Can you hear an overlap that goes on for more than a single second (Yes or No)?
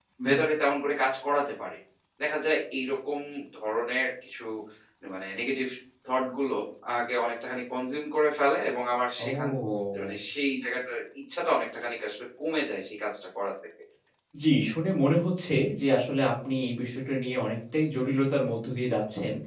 No